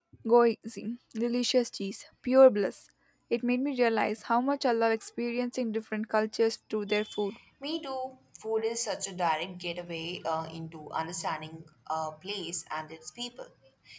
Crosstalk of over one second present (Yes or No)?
No